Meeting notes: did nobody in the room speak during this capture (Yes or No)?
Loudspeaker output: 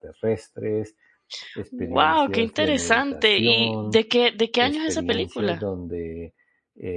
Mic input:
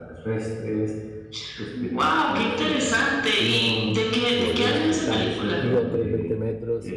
No